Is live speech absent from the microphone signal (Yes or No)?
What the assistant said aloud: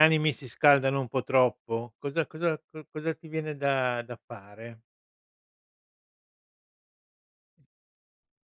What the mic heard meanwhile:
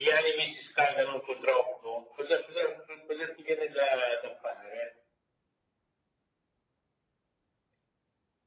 Yes